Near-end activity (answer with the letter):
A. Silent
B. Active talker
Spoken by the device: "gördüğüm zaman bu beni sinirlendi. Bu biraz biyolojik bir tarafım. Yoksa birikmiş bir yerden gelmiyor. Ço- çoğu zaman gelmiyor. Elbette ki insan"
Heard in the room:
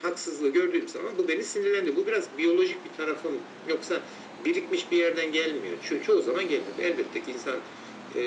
A